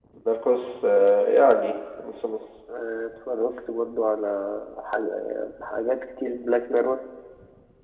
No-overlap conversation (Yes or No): Yes